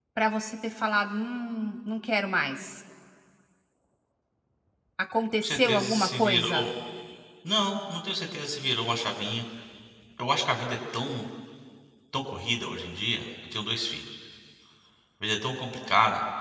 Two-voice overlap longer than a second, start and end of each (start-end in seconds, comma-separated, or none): 5.4-6.7